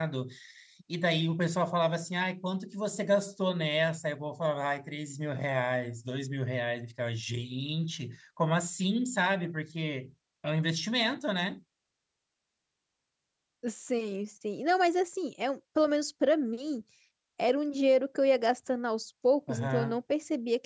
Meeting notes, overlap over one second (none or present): none